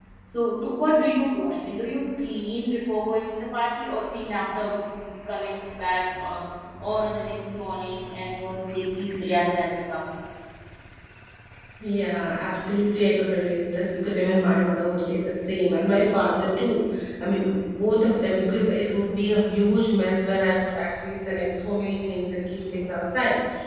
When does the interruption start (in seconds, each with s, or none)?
none